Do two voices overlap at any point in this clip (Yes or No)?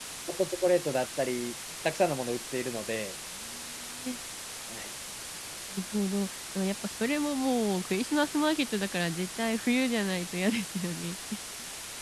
No